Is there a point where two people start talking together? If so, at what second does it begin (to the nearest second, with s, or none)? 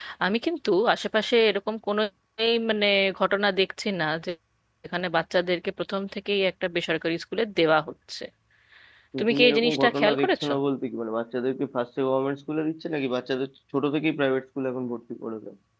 9 s